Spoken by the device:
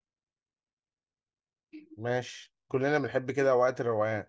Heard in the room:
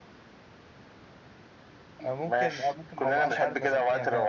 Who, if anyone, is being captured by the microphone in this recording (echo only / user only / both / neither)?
both